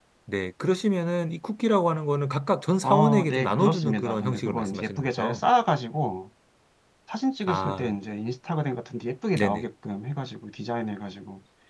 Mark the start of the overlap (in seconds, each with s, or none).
2.8 s